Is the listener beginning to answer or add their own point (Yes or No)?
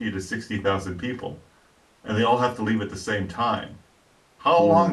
No